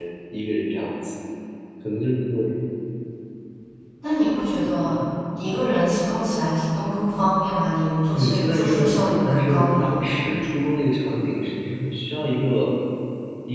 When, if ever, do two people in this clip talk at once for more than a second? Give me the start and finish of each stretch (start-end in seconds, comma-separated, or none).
8.1-10.0